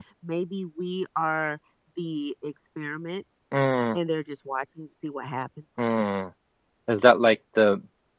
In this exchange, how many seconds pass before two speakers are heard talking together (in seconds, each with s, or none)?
none